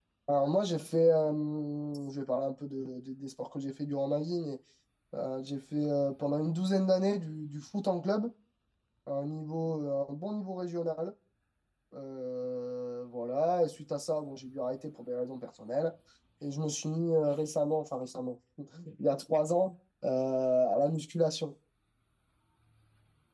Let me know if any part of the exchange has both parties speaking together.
No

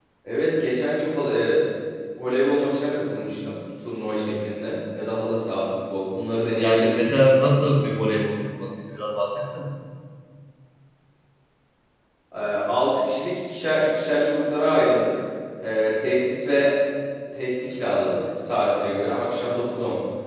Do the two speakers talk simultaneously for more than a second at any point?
No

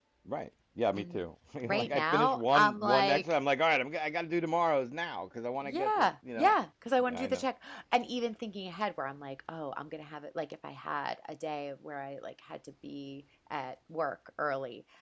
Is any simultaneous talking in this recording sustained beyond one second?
Yes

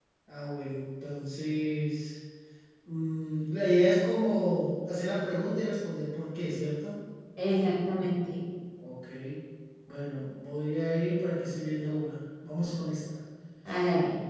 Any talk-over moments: No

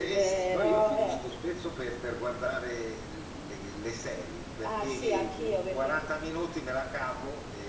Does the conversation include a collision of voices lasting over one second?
Yes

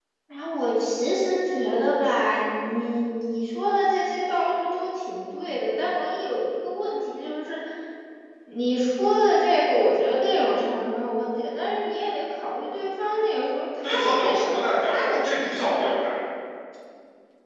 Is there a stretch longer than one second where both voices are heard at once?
Yes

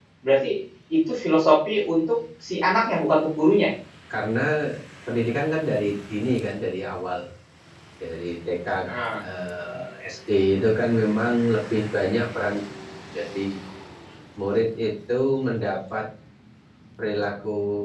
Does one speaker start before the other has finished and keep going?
No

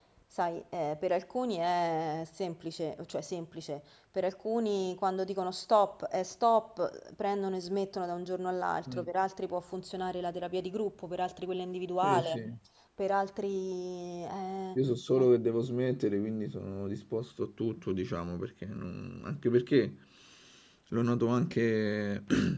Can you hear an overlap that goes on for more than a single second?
No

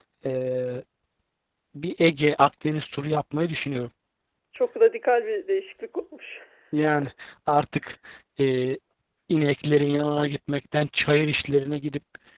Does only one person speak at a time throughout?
Yes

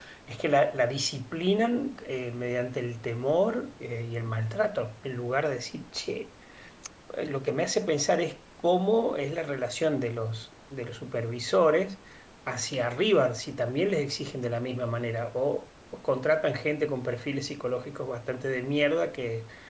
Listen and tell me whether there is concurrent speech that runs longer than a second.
No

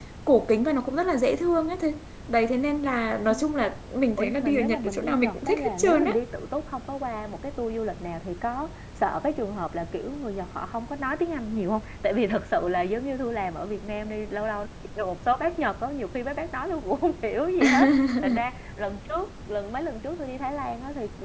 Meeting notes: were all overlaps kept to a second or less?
No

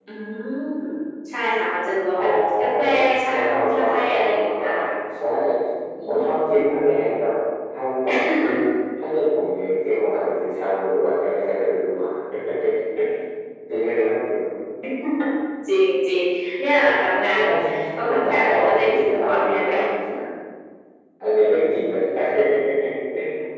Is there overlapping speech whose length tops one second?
Yes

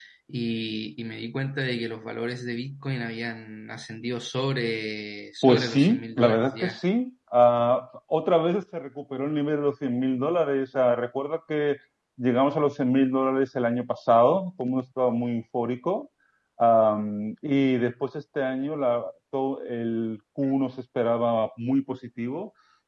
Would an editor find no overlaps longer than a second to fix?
No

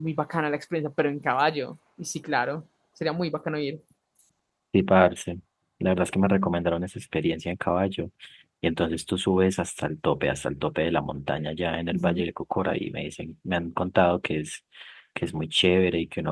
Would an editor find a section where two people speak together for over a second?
No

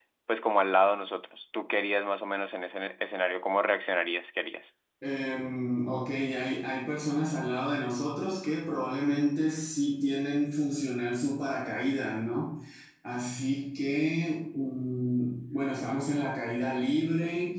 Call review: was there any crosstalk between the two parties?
No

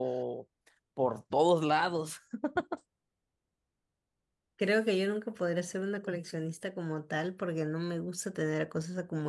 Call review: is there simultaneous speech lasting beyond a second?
No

